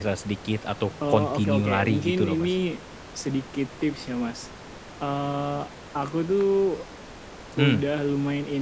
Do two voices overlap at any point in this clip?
Yes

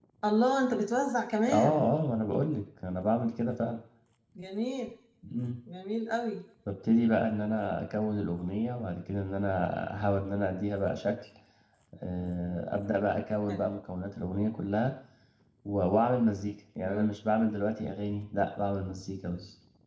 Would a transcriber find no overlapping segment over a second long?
Yes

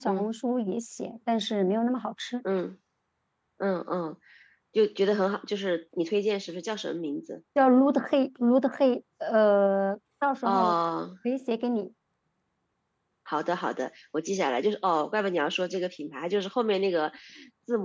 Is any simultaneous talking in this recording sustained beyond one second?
No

